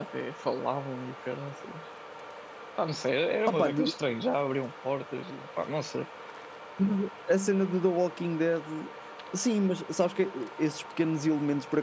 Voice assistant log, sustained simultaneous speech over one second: none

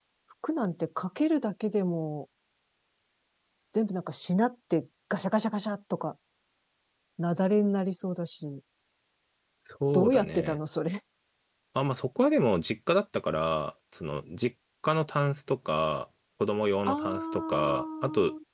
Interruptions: present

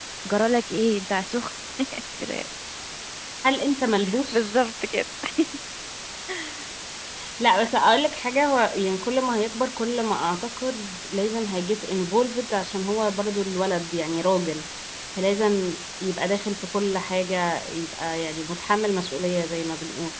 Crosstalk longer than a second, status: none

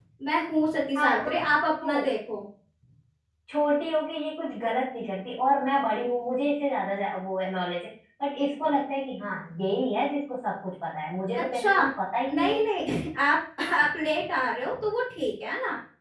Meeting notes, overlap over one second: none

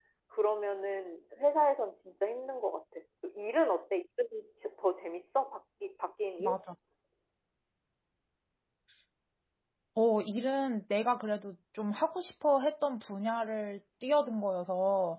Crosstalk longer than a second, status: none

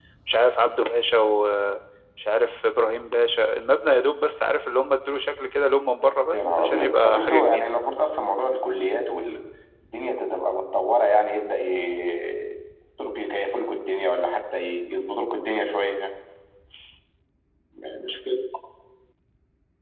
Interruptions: present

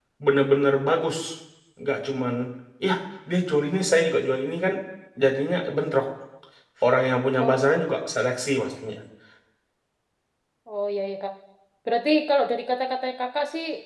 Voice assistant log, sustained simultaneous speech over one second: none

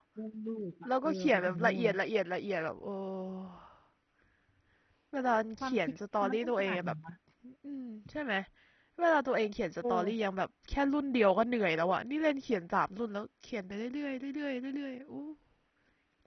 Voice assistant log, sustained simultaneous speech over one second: present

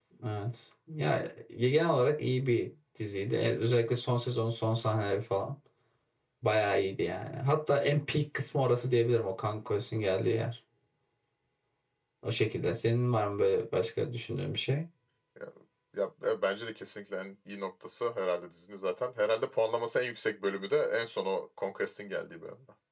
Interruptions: none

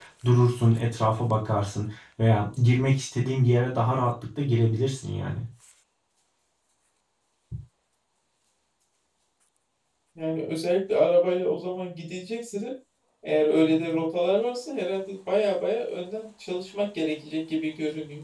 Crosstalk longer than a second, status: none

